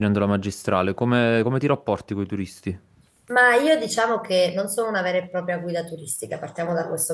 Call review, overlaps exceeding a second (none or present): none